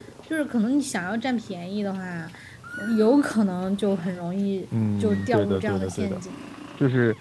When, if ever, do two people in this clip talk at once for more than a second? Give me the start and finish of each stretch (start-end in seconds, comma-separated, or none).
5.0-6.2